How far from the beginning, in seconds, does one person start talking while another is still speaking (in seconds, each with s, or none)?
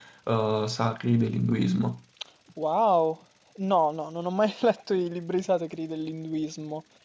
none